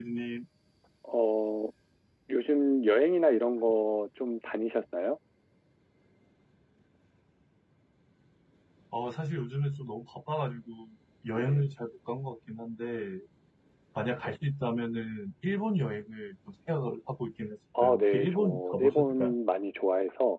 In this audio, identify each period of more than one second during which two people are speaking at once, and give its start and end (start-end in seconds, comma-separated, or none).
17.8-19.3